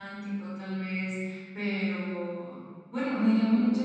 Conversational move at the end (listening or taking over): listening